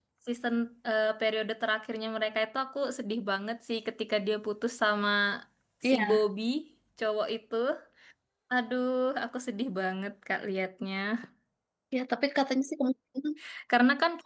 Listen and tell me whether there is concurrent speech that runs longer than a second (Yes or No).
No